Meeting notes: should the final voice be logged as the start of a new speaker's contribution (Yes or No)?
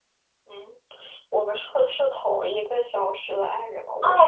Yes